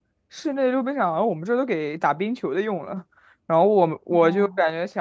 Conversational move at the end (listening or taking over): listening